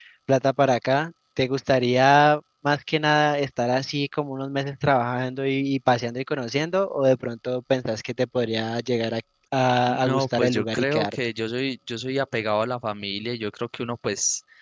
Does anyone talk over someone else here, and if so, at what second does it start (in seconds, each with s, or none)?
9.9 s